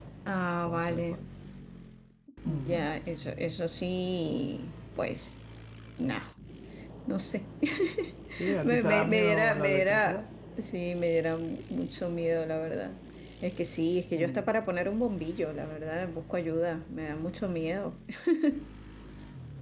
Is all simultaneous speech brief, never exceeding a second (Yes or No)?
No